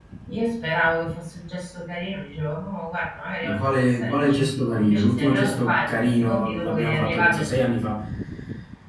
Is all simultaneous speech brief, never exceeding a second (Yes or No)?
No